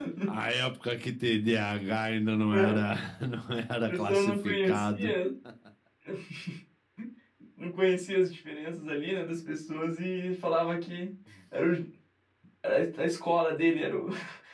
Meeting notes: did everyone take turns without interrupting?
No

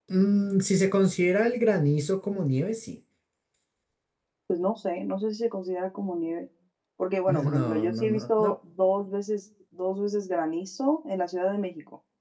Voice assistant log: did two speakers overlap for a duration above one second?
Yes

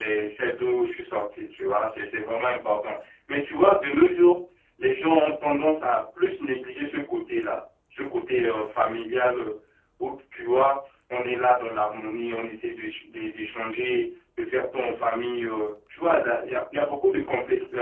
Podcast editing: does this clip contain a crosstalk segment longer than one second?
No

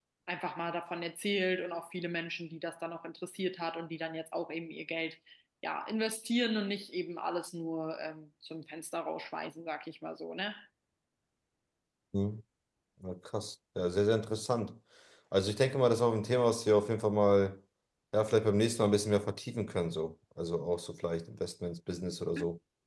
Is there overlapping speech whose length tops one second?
No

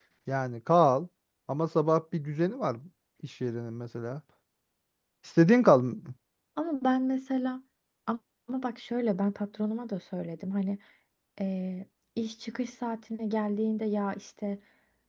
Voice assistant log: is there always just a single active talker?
Yes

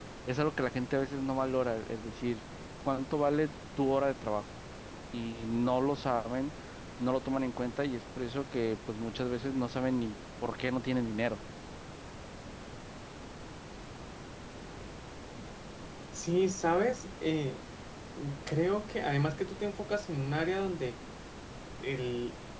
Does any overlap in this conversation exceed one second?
No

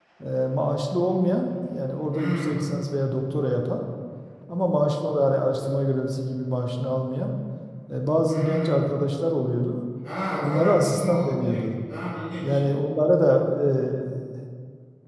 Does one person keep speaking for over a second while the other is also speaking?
Yes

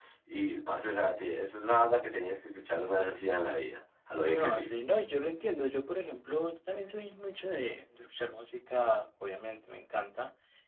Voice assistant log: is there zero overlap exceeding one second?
Yes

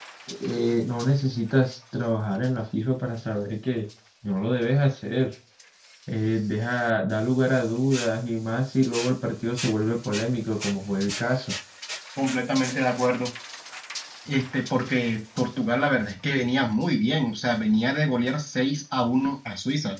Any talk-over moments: No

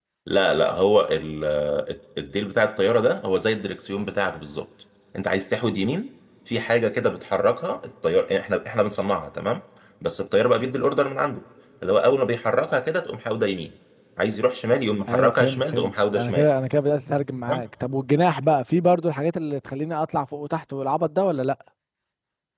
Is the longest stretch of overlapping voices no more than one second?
No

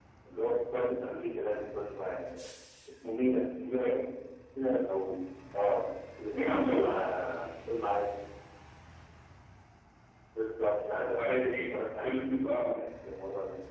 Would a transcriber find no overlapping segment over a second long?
No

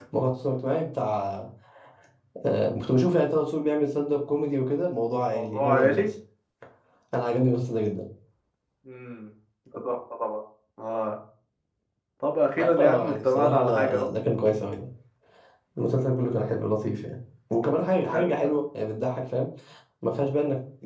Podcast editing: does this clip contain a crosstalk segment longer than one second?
Yes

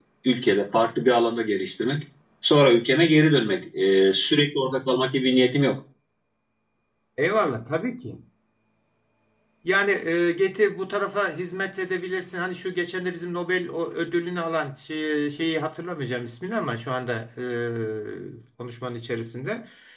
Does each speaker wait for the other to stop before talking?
Yes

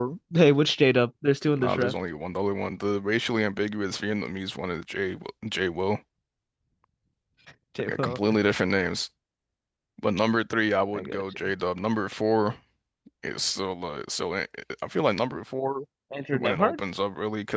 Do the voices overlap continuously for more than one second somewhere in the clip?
No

